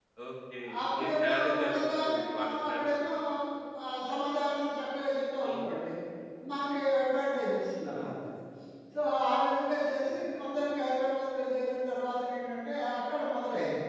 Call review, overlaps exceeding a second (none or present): present